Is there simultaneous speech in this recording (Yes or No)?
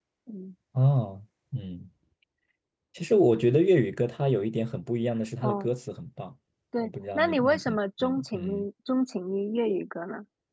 Yes